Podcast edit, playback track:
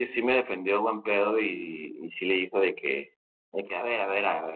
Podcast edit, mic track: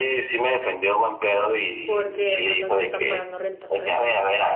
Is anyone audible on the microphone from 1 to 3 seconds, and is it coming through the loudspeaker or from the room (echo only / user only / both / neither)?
both